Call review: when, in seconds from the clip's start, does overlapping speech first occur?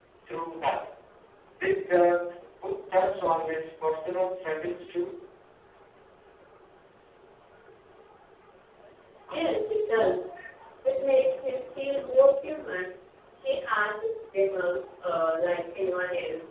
none

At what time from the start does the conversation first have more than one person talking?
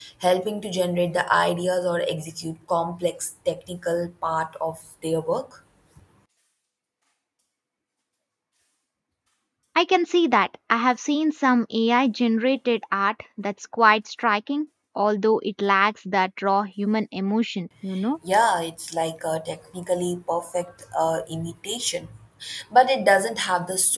none

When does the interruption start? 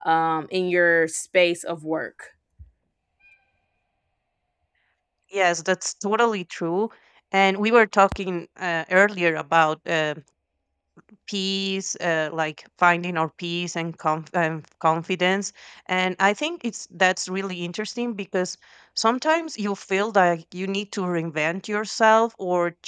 none

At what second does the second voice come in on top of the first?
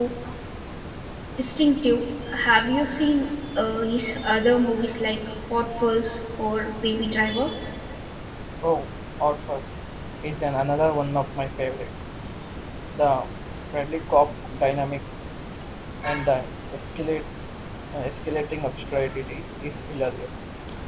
none

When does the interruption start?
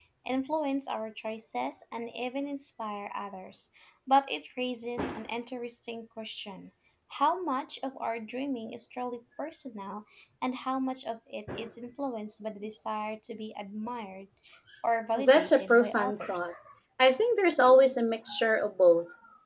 15.2 s

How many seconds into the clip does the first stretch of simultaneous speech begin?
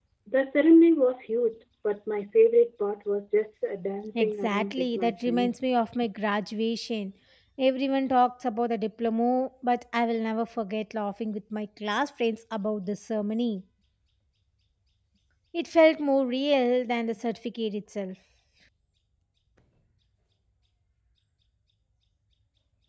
4.2 s

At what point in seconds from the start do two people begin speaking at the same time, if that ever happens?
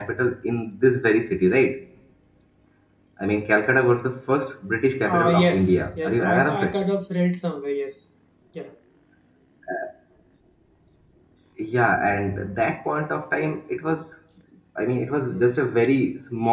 5.0 s

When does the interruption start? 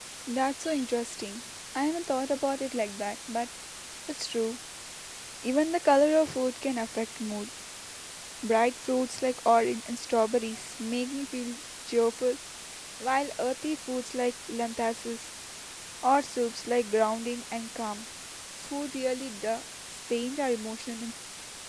none

